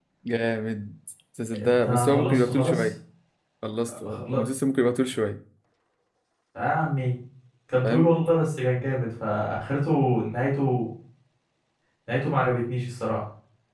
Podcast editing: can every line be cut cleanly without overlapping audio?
No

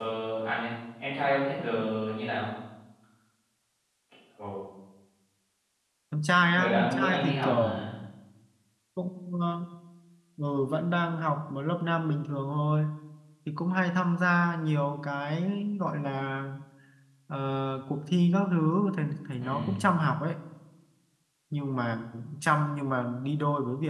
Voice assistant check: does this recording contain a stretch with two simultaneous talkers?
Yes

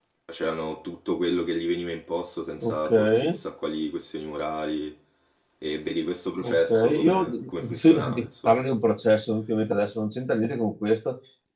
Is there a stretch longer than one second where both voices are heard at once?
Yes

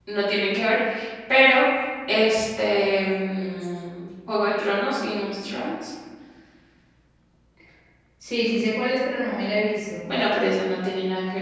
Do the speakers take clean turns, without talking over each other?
Yes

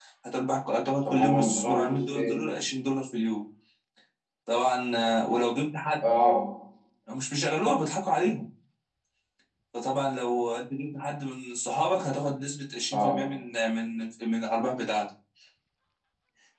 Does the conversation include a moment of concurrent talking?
Yes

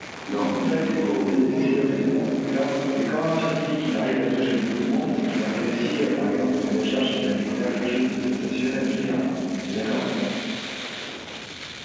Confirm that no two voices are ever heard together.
No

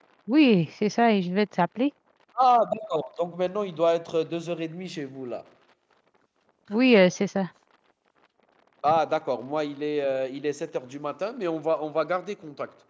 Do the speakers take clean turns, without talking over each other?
Yes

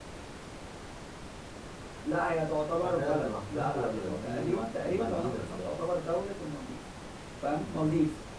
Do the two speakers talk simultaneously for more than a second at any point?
Yes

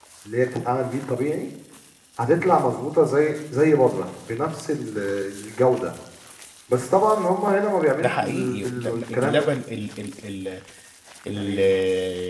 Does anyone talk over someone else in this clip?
Yes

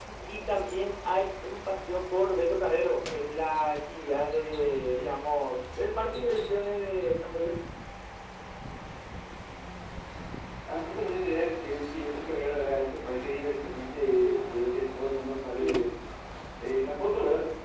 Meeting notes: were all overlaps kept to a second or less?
Yes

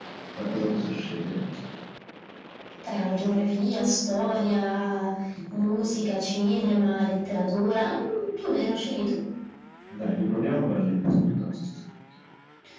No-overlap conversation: Yes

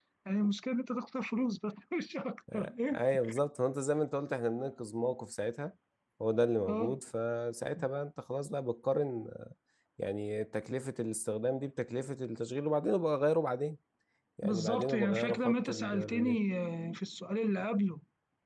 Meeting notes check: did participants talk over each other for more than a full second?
Yes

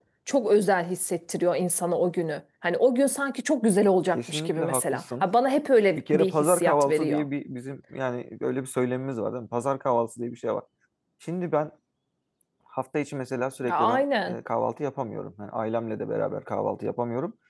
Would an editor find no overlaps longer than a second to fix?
No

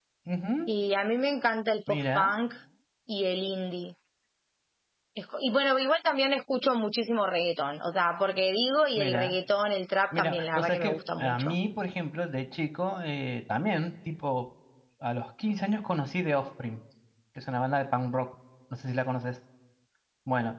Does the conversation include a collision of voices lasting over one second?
Yes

